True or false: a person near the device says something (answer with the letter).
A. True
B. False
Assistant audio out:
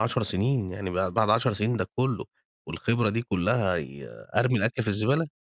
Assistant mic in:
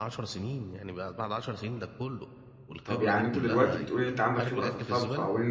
A